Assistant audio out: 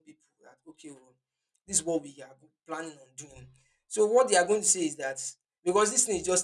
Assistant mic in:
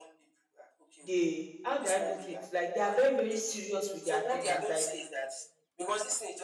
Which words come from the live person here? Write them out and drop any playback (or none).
they how do I put it? Like they are very, very serious with their attendance. Like